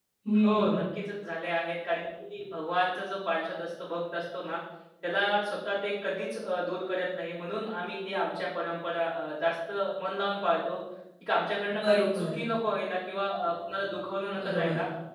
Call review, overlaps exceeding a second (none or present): none